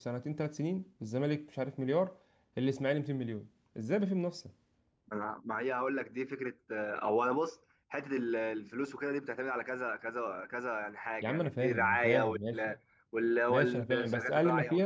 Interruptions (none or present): present